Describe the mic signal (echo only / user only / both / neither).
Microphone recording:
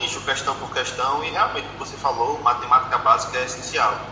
echo only